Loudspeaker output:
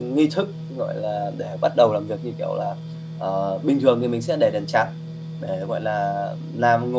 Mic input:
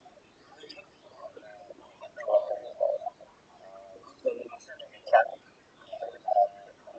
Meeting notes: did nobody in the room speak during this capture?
Yes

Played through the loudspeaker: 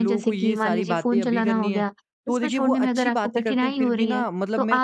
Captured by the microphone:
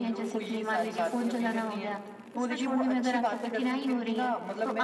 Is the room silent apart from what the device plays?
Yes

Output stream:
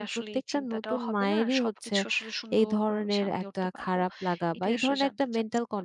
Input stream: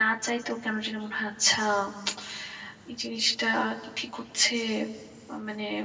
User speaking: Yes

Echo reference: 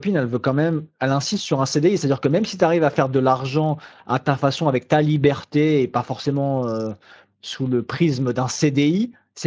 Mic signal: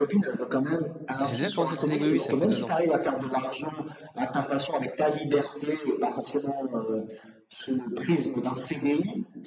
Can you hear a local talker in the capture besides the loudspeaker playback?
Yes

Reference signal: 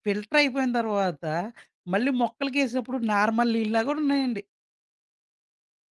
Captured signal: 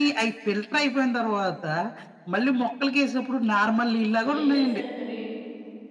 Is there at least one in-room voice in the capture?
Yes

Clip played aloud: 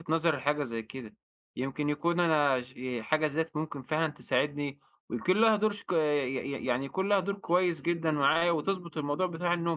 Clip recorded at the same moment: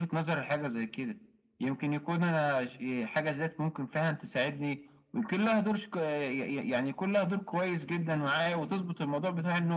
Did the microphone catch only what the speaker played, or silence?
Yes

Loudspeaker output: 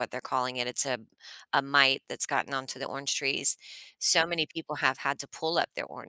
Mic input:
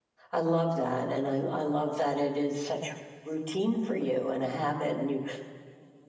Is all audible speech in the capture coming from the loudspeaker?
No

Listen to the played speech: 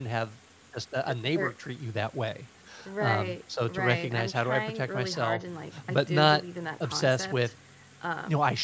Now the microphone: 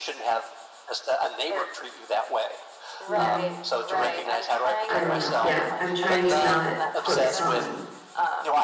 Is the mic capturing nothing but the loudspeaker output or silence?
No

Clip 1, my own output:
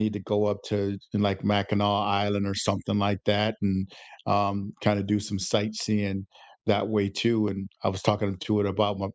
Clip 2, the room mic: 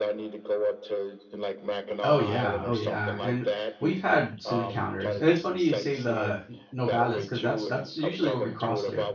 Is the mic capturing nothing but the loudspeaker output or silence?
No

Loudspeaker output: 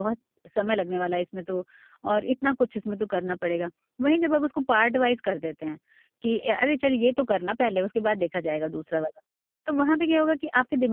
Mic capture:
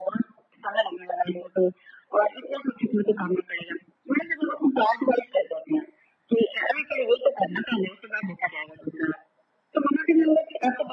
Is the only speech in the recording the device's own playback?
Yes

